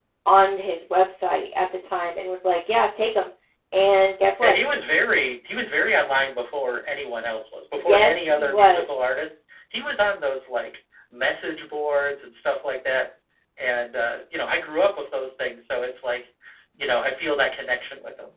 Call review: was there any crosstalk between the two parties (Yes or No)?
Yes